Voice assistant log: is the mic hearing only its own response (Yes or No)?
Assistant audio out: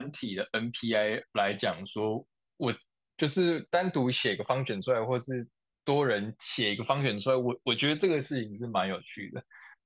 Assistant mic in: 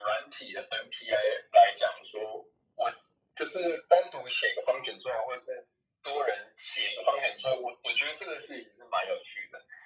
Yes